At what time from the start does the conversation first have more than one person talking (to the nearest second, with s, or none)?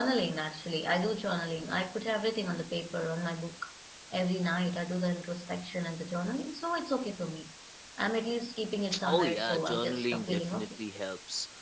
9 s